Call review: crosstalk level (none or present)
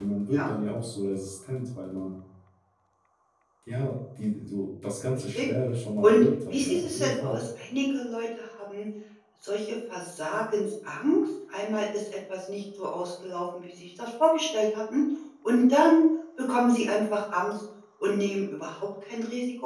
present